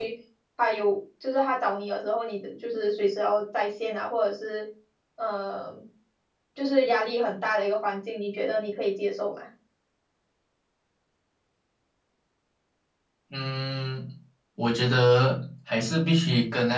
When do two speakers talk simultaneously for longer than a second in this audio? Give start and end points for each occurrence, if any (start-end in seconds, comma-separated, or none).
none